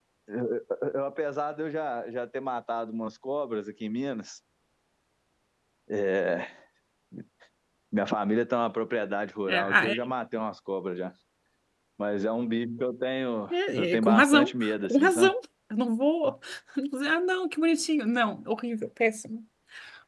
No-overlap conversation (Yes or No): No